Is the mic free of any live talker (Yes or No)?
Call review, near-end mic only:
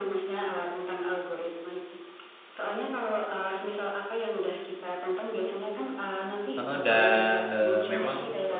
No